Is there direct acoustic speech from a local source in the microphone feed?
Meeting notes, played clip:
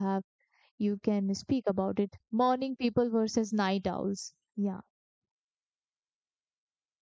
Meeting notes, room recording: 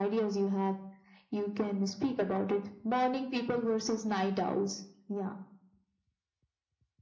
No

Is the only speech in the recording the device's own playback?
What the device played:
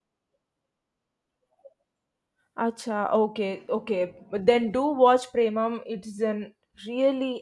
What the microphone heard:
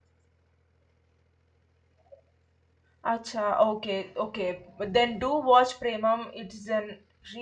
Yes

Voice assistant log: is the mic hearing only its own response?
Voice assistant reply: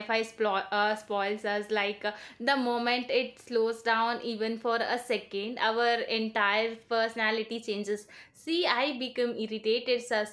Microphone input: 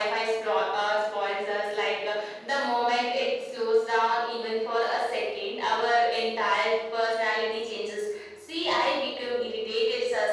Yes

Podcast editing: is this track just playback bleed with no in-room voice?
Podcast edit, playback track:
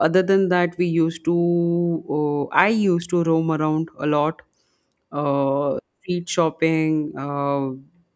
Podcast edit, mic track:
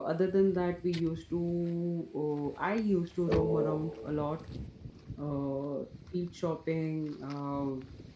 No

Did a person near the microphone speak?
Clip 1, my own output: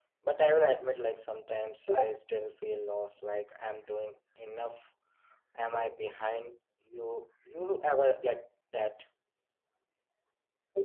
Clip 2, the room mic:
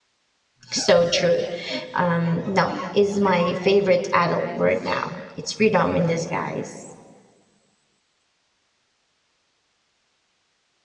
Yes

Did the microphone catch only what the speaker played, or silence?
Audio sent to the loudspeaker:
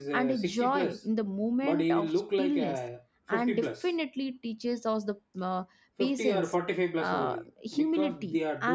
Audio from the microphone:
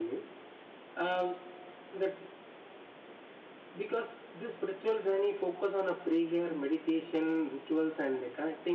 No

